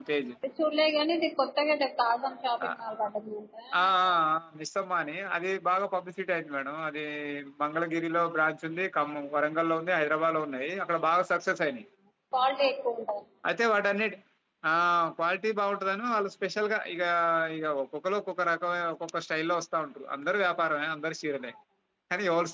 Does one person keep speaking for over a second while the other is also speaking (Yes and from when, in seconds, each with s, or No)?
No